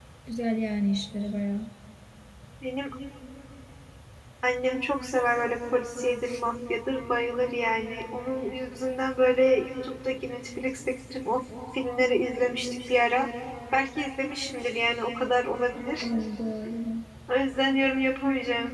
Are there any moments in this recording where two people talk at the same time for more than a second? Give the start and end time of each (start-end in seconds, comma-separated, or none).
none